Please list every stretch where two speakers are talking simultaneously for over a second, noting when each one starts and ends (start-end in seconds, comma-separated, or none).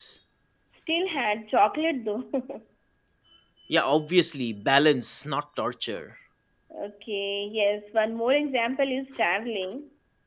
none